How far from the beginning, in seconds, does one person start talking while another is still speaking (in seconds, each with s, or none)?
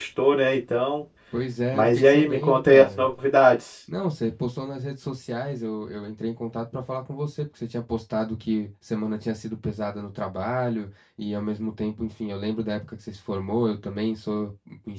1.7 s